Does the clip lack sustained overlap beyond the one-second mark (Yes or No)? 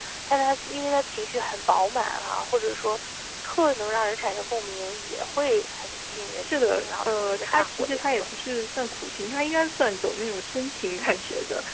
No